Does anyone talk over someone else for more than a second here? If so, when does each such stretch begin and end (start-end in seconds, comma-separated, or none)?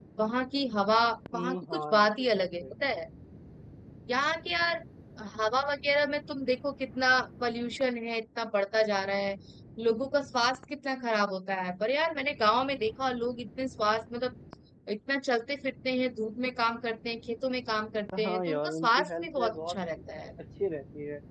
1.3-2.6, 18.2-19.8